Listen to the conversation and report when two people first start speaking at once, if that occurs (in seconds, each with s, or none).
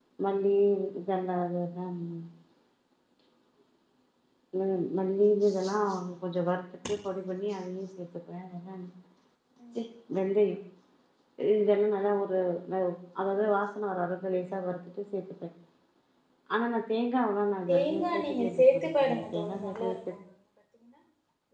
17.7 s